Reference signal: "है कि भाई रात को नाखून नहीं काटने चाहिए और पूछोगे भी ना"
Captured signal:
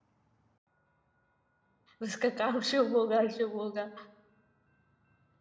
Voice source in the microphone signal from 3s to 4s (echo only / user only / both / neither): user only